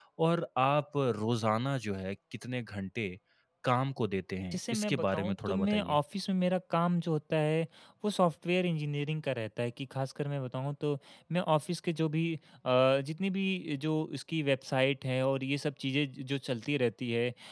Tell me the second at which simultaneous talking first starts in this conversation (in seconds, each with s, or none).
4.5 s